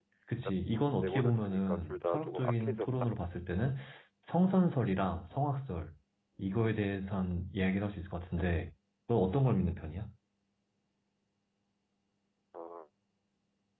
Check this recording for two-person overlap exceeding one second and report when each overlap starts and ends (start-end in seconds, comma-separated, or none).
1.0-3.1